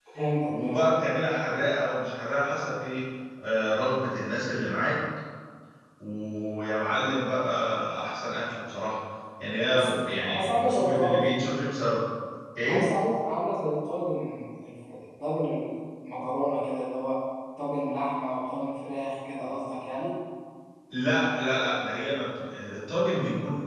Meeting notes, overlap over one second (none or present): present